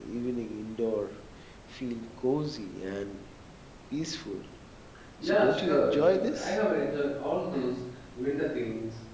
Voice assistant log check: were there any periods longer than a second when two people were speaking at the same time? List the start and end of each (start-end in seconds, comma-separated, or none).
5.2-6.6